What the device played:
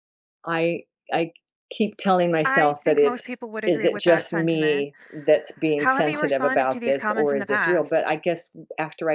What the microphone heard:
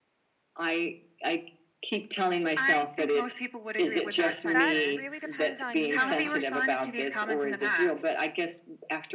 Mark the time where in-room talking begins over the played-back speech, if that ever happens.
4.4 s

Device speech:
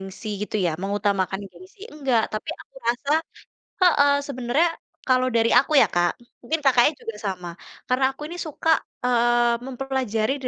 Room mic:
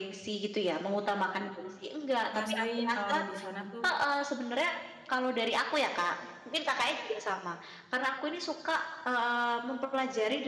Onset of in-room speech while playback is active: 2.3 s

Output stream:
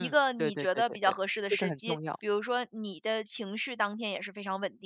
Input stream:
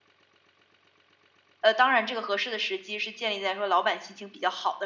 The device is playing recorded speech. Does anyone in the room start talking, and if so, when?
1.6 s

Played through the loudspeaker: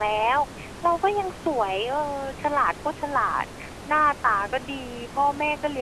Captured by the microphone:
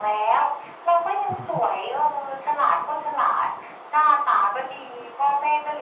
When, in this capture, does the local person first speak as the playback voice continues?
1.3 s

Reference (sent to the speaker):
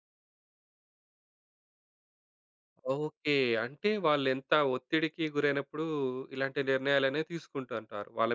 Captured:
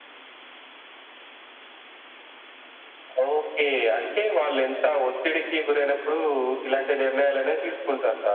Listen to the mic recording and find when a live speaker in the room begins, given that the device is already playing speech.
none

